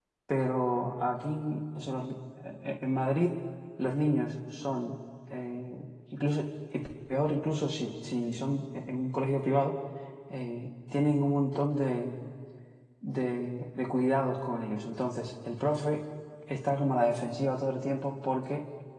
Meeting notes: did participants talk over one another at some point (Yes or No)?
No